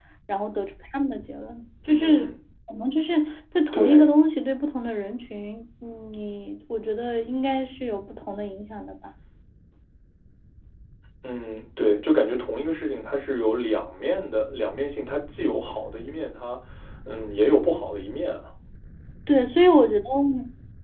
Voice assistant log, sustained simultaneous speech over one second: none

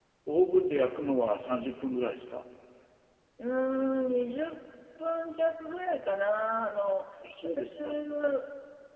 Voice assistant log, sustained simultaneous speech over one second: none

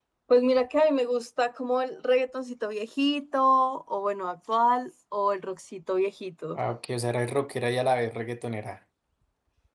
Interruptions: none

